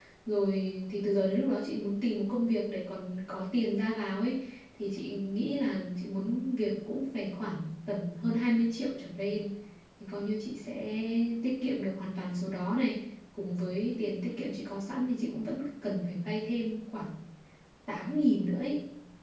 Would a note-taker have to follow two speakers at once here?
No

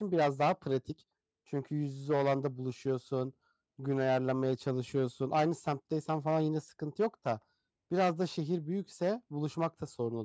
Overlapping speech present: No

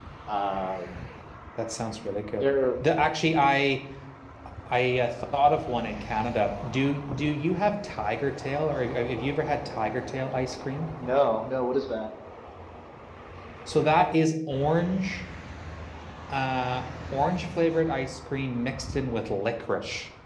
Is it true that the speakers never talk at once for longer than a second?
Yes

